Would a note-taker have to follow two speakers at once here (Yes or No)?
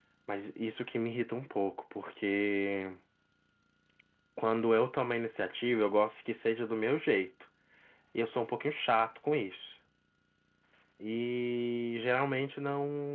No